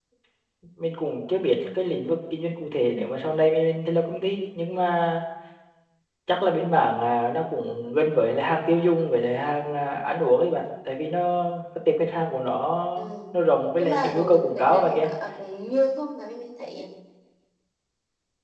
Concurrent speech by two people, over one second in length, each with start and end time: 13.8-15.1

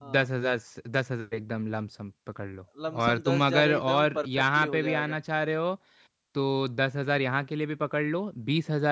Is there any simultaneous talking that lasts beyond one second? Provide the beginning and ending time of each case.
3.0-5.2

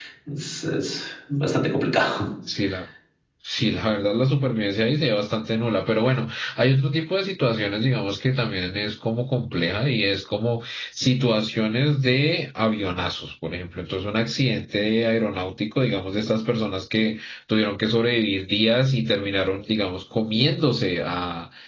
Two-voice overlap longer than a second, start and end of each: none

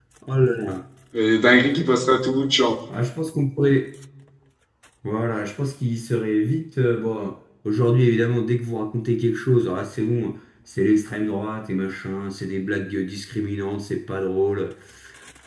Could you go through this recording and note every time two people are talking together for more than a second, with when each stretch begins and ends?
none

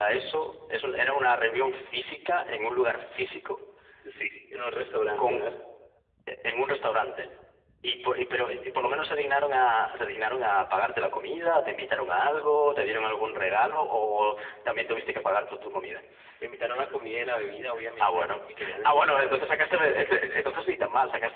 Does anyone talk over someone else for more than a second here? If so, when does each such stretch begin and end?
18.0-19.4

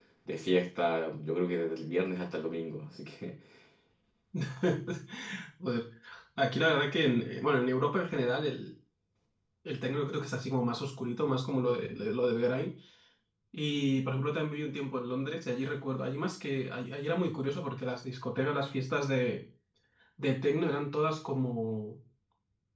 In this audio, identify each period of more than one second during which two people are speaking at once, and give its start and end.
none

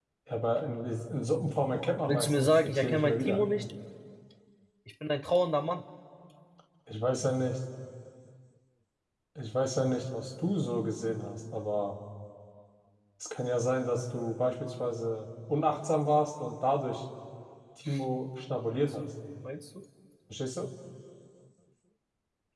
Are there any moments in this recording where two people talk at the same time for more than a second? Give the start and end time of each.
2.1-3.4

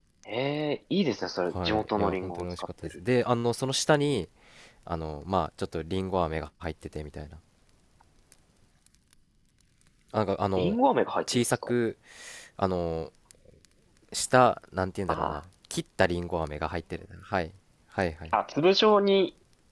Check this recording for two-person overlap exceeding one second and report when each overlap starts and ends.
1.5-3.0

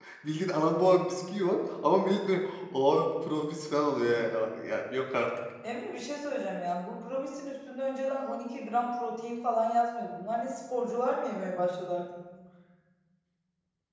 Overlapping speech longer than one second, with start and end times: none

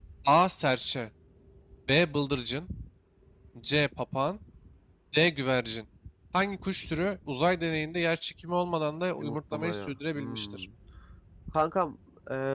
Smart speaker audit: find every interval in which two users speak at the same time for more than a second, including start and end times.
9.2-10.6

